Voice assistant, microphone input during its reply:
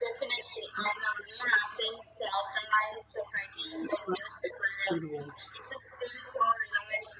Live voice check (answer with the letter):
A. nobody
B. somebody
B